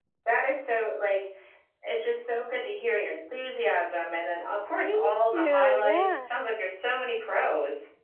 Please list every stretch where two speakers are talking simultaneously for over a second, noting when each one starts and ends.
4.8-6.3

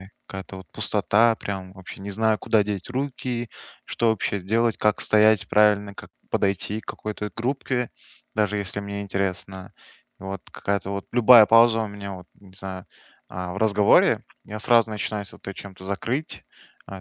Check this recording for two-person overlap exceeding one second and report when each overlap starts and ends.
none

